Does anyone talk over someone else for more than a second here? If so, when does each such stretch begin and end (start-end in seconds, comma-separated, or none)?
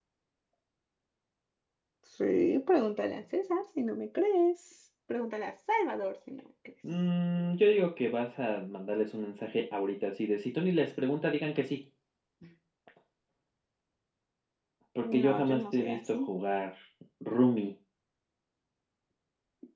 15.0-16.3